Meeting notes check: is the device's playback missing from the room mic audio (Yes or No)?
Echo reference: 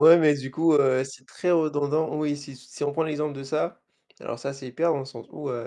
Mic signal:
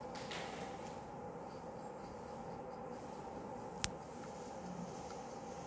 Yes